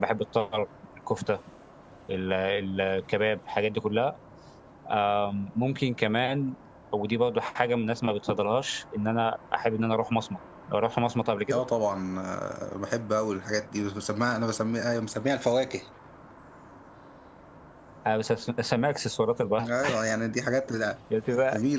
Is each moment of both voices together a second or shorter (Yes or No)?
Yes